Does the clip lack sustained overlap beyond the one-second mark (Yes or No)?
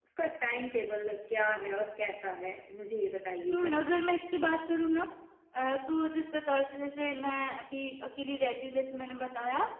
Yes